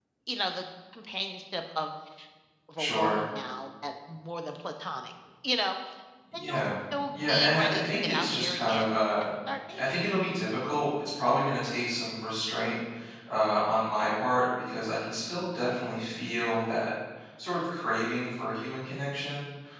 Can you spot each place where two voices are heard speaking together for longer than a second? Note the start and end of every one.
7.1-9.3

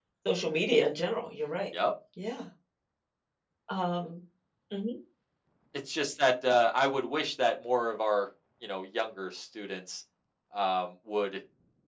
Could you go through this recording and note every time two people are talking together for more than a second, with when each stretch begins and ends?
none

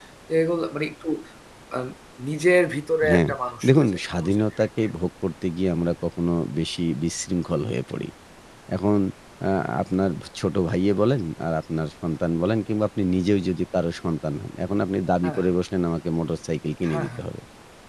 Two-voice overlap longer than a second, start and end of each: 3.7-4.9

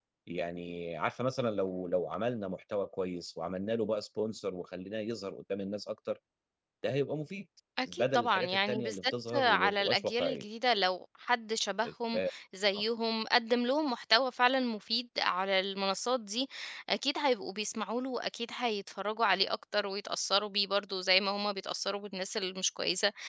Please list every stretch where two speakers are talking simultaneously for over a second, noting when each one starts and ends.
7.9-10.4

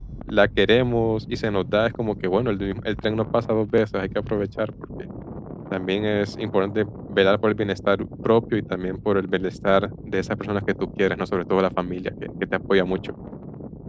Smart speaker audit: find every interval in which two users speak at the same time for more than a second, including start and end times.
none

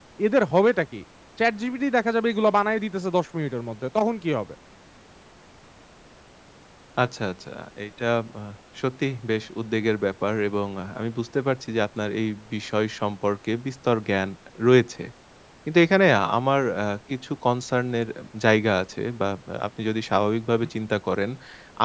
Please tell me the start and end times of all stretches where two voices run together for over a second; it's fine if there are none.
none

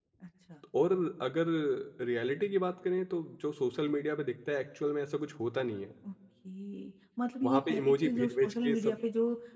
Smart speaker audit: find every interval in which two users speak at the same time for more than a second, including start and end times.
7.4-8.9

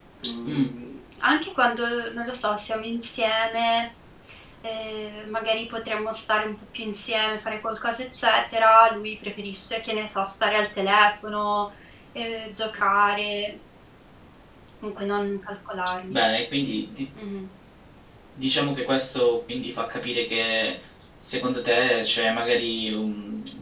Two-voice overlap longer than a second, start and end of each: none

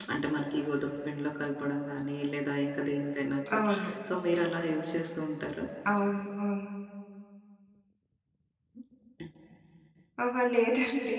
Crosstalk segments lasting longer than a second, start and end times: none

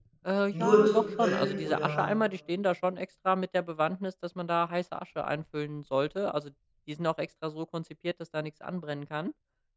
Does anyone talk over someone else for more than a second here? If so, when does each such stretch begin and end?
0.5-2.0

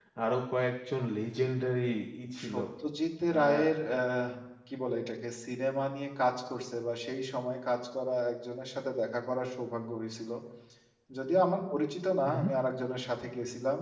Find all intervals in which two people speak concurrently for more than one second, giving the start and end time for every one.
none

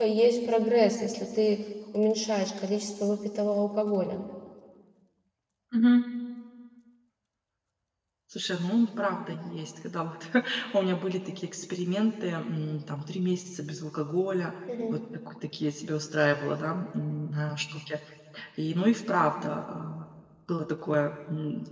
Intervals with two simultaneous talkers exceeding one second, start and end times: none

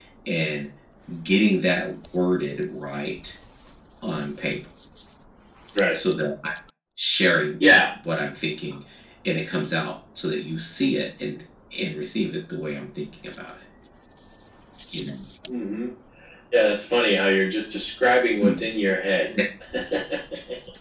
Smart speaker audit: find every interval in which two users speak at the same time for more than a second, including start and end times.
none

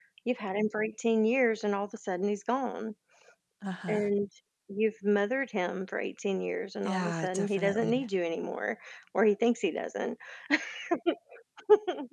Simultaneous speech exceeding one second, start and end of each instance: 6.8-8.1

